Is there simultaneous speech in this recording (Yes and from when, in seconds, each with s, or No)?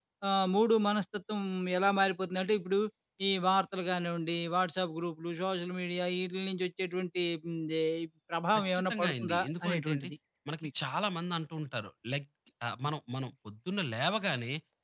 Yes, from 8.6 s